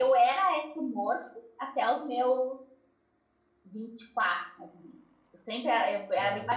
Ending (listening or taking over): listening